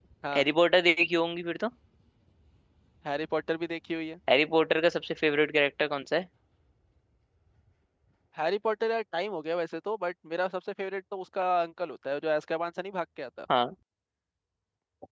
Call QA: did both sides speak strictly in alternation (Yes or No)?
Yes